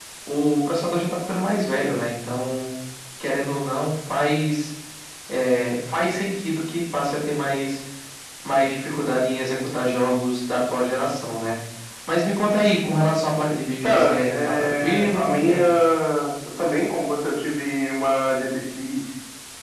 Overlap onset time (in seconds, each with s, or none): 13.8 s